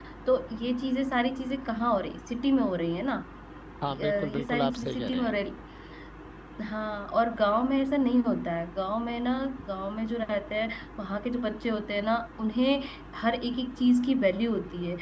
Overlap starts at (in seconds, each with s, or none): 3.9 s